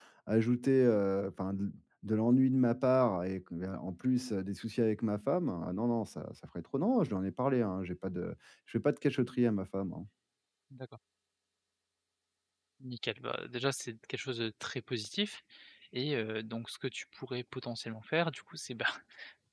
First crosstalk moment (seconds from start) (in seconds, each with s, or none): none